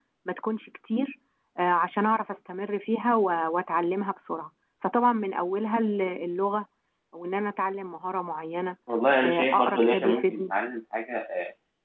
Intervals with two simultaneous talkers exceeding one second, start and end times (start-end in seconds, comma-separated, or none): 9.2-10.5